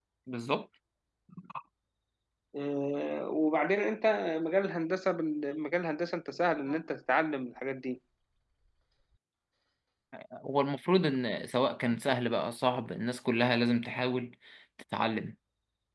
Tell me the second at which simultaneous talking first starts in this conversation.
none

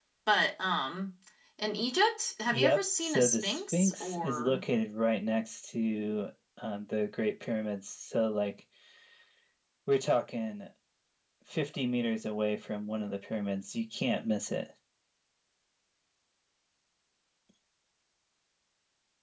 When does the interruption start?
3 s

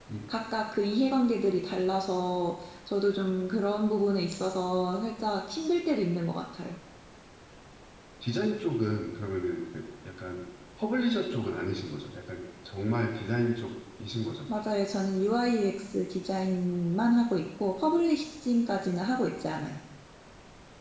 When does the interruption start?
none

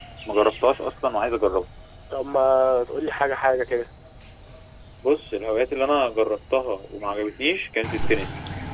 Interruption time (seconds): none

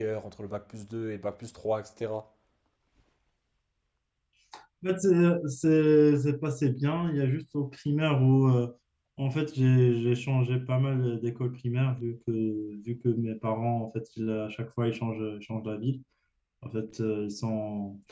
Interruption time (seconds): none

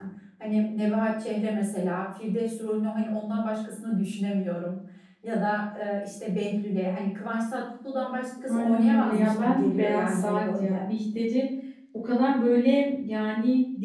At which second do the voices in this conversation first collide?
8 s

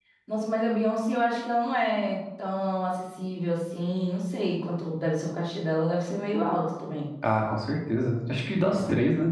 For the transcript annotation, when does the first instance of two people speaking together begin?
none

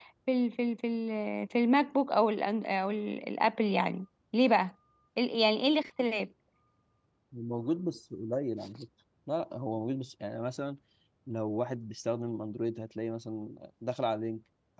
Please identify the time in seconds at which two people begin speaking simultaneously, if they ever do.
none

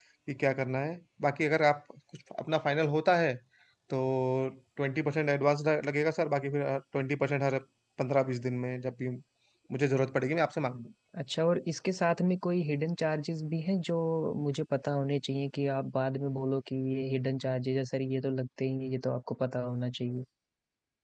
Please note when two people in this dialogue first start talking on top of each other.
none

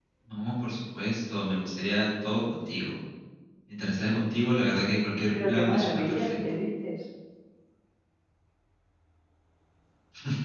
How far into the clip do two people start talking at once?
5 s

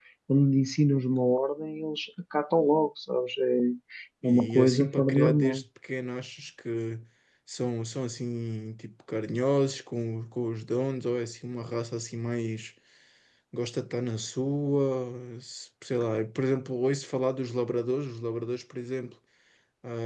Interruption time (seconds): 4 s

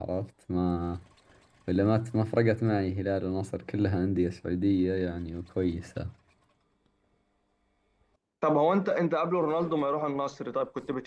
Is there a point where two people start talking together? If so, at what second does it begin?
none

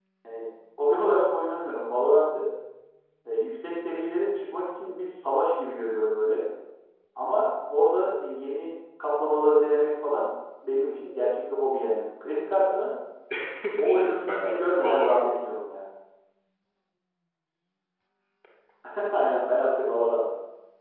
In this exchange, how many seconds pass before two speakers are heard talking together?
14 s

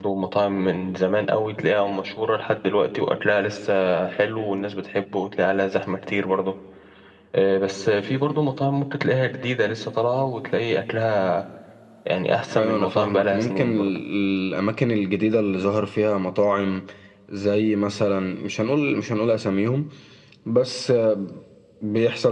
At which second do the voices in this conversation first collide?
13 s

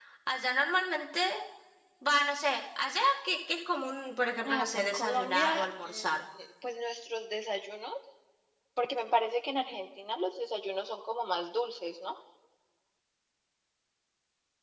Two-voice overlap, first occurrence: 4 s

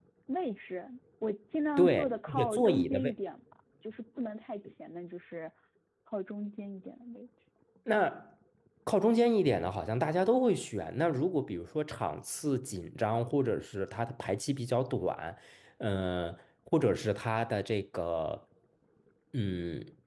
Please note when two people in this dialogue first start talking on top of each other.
2 s

